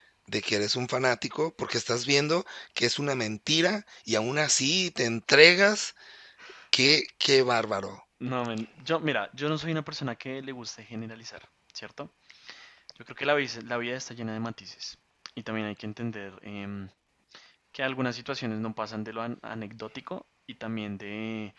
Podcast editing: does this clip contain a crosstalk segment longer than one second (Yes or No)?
No